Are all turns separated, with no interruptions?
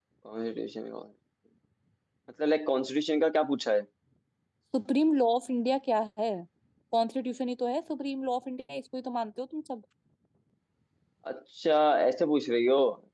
Yes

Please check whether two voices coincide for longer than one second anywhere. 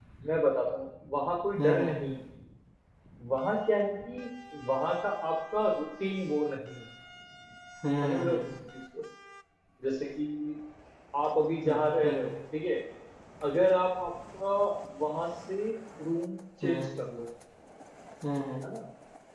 No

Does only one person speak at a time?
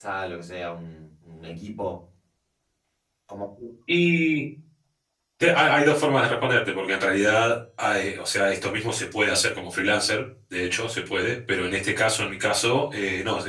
Yes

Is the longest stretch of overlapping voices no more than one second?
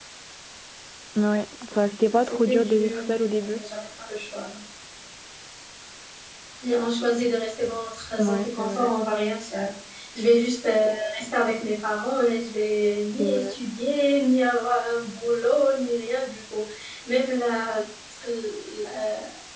No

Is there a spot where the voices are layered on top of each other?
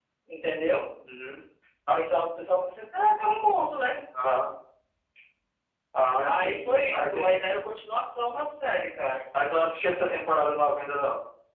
Yes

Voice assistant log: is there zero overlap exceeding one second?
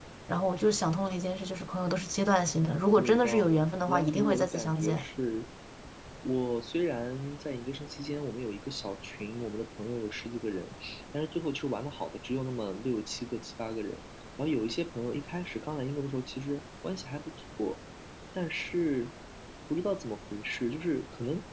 No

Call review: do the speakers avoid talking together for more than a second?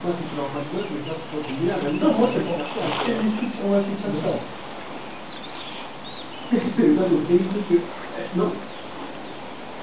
No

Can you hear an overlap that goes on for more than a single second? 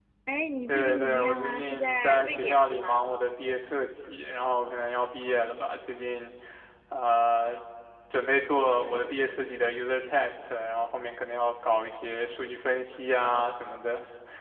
Yes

